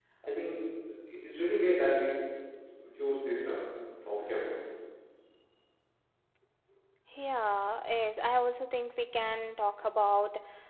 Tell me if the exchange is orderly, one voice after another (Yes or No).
Yes